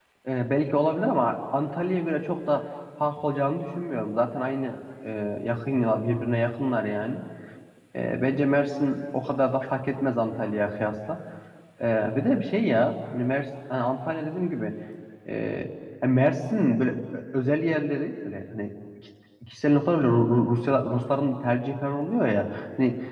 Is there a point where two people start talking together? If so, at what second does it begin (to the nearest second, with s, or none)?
none